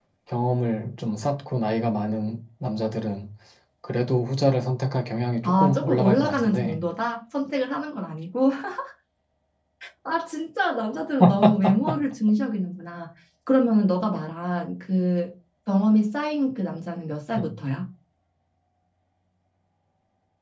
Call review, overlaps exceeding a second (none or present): present